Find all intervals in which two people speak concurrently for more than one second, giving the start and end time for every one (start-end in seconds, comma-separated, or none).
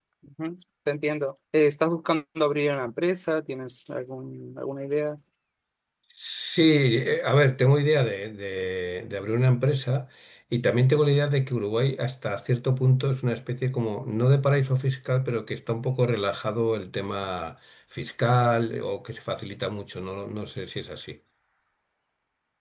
none